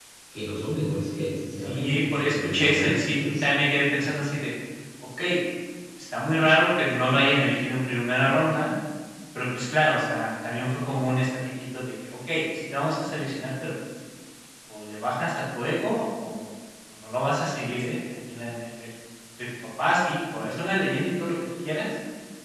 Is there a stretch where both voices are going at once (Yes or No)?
Yes